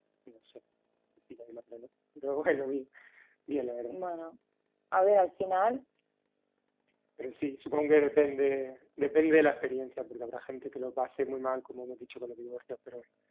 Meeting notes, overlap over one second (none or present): none